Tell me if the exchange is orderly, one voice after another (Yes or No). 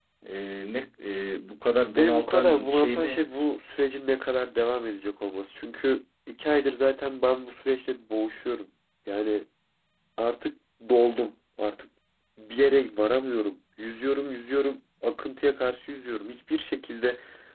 No